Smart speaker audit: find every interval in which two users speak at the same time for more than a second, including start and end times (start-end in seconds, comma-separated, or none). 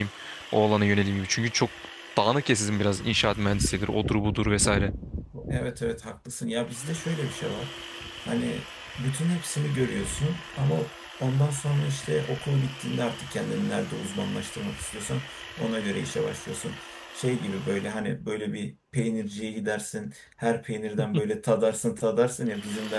none